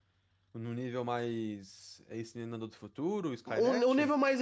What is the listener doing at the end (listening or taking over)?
taking over